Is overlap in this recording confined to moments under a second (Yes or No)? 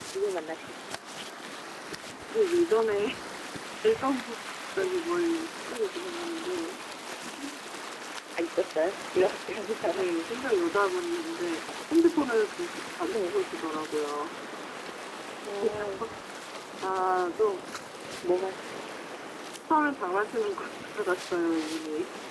Yes